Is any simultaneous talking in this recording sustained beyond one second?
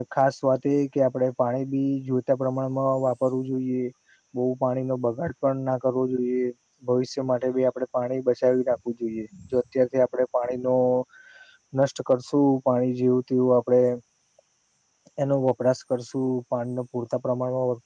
No

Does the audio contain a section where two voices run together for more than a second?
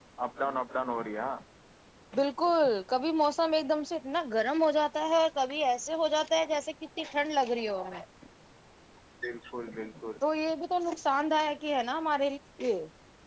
No

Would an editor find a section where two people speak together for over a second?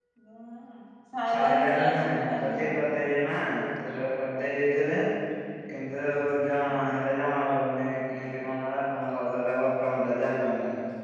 Yes, from 1.3 s

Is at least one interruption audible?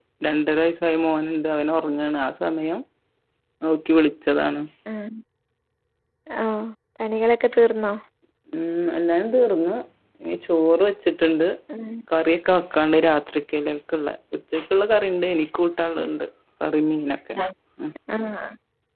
No

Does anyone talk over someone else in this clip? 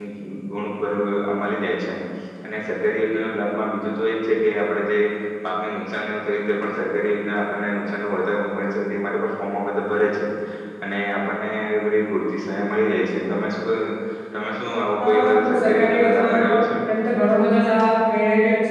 Yes, from 15.0 s

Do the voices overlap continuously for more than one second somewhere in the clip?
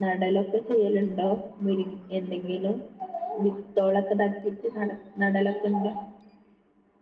No

